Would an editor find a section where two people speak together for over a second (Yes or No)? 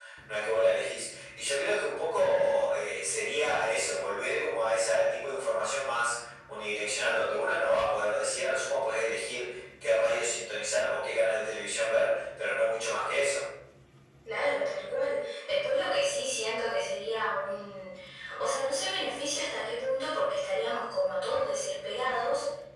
No